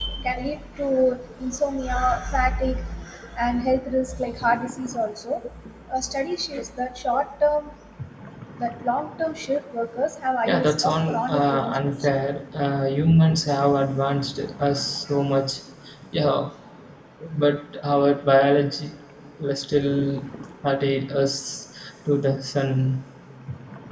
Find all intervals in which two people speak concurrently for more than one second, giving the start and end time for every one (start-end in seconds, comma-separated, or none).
10.5-12.2